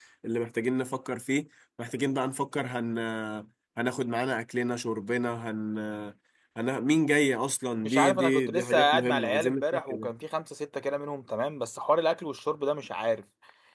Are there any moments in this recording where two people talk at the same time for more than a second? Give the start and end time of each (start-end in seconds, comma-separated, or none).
7.8-10.1